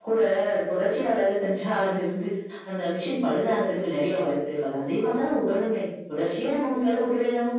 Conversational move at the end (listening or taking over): listening